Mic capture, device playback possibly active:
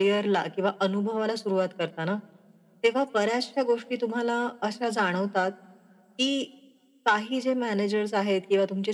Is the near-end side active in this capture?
No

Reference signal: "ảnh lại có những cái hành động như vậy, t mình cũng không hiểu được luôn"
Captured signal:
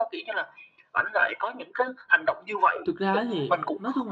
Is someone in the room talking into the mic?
Yes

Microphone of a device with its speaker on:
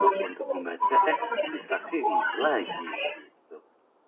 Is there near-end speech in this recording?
Yes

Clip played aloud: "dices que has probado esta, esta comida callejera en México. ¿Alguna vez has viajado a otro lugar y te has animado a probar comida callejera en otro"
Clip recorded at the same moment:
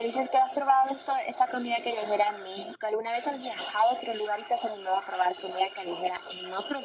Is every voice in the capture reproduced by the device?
Yes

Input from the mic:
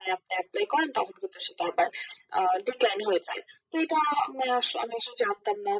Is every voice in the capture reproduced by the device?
Yes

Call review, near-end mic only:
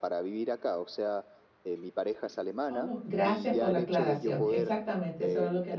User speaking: Yes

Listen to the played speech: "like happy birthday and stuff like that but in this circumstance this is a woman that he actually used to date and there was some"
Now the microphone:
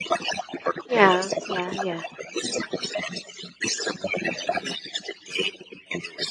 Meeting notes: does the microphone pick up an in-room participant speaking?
Yes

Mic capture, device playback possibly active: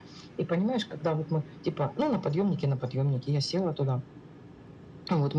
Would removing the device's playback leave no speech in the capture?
Yes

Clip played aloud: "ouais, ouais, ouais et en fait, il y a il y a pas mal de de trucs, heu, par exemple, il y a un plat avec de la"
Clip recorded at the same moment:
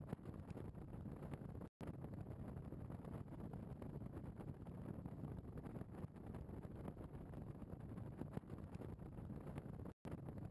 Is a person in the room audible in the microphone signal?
No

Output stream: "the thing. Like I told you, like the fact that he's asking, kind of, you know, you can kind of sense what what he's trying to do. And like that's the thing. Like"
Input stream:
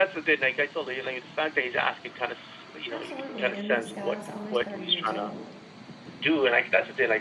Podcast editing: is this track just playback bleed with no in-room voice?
No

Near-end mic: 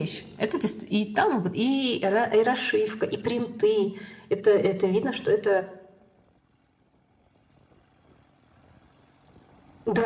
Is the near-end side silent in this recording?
Yes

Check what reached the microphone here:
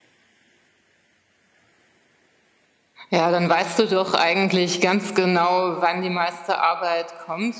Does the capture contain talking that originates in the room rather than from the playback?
Yes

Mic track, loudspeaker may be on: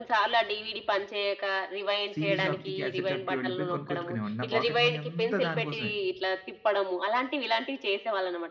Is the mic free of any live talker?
No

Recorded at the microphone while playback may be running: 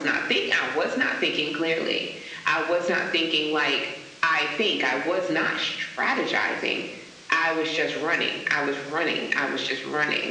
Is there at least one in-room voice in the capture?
No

